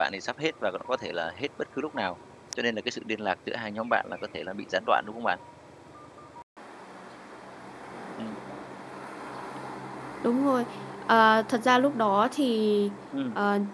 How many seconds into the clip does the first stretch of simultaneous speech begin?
none

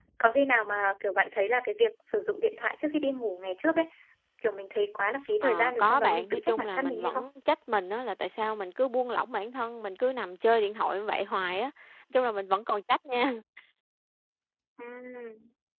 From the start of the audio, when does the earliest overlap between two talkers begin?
5.4 s

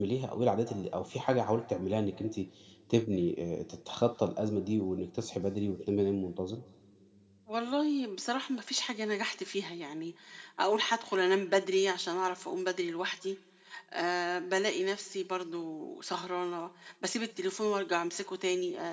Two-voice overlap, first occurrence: none

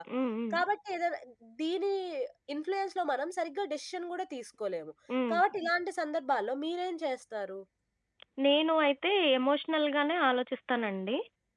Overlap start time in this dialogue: none

